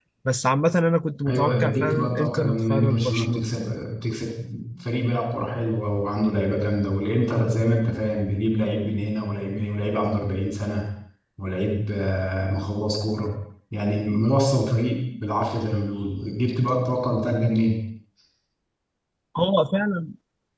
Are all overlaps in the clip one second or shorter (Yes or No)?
No